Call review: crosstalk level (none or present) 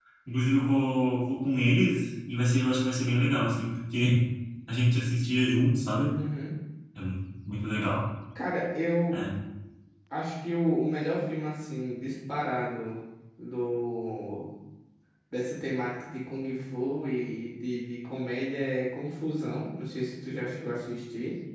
none